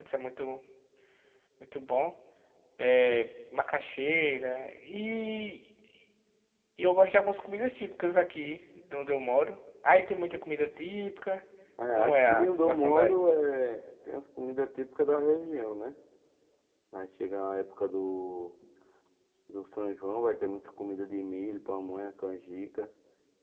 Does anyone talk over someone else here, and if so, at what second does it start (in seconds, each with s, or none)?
11.9 s